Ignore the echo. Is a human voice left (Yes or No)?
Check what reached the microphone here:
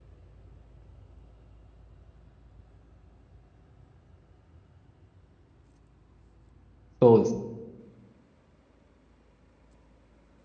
Yes